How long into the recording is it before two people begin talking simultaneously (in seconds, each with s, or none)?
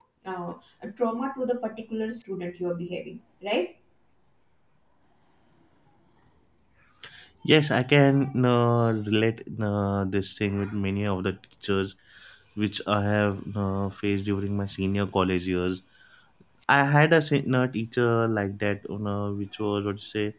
none